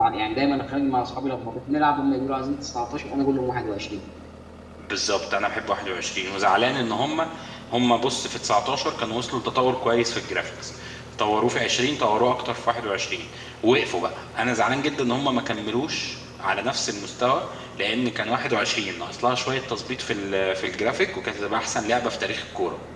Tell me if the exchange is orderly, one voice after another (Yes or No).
Yes